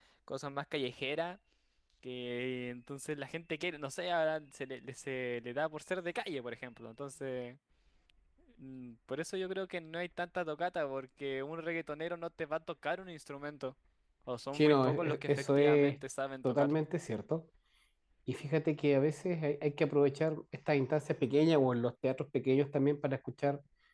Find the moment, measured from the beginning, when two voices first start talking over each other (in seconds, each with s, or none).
14.5 s